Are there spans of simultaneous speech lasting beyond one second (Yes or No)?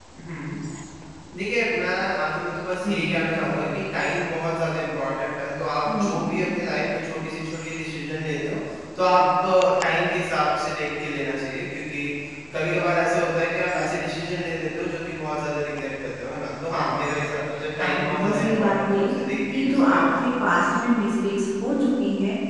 Yes